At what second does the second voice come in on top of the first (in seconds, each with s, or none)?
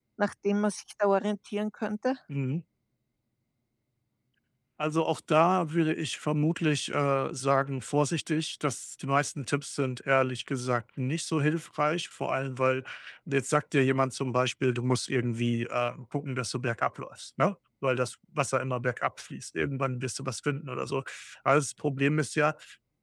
none